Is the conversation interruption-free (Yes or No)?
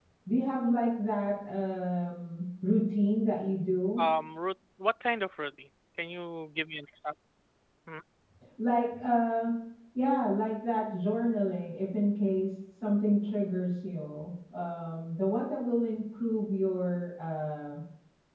Yes